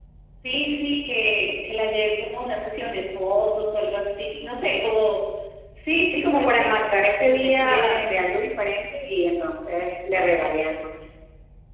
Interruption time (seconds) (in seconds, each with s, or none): 6.1 s